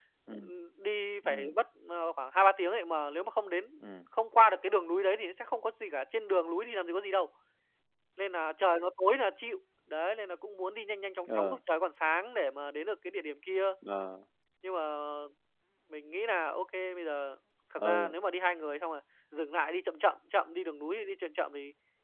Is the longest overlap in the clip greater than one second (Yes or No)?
No